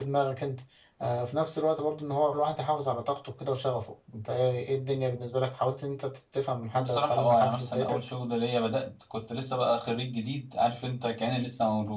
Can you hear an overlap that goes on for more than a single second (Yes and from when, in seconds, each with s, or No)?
Yes, from 6.7 s